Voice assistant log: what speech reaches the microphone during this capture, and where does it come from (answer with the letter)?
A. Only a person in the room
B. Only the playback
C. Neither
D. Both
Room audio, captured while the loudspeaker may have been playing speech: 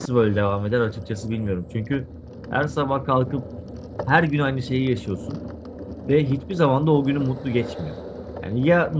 A